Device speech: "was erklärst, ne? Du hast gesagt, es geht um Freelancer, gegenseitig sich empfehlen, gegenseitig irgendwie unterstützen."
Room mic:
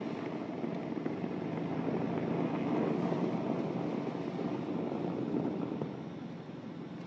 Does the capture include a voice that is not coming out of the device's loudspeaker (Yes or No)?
No